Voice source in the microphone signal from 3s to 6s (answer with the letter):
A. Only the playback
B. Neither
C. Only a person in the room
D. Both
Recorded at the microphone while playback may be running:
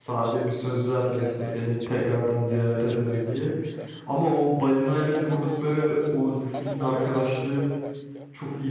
D